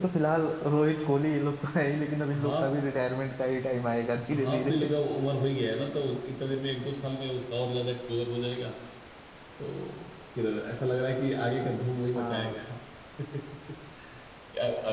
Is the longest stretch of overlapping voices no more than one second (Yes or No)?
Yes